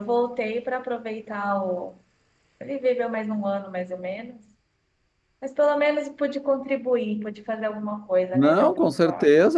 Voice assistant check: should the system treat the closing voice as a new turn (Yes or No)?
Yes